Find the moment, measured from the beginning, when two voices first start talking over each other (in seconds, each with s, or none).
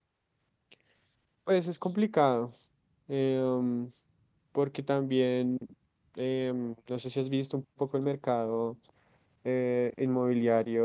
none